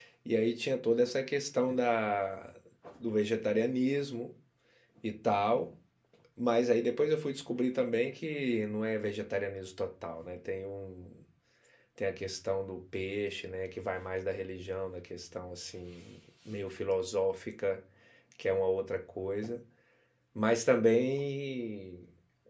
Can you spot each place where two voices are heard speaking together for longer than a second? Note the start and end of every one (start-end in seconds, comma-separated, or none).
none